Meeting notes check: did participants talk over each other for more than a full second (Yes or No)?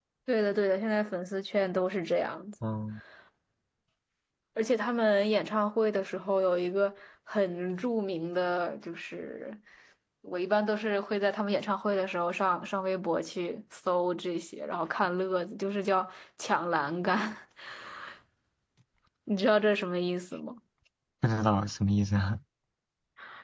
No